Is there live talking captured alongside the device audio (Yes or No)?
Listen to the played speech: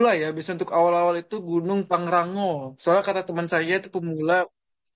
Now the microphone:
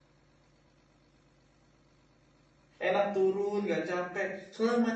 Yes